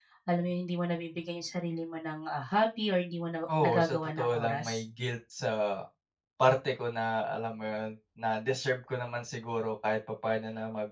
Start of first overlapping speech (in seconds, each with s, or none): 3.5 s